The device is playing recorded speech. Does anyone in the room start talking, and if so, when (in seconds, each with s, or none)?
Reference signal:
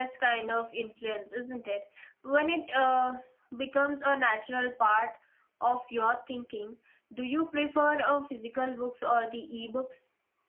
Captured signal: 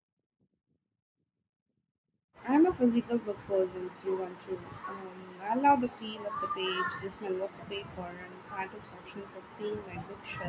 2.5 s